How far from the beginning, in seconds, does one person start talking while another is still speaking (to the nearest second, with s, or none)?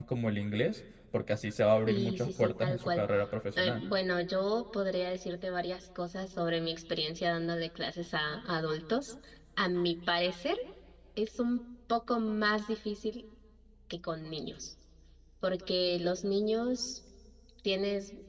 2 s